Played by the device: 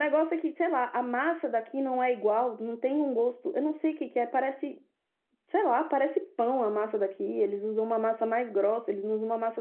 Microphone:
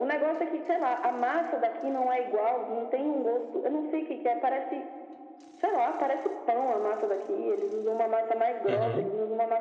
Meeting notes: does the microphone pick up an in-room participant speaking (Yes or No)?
Yes